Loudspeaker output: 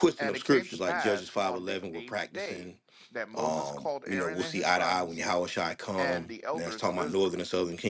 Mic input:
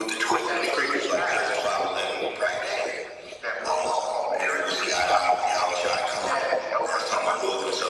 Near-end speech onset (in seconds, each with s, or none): none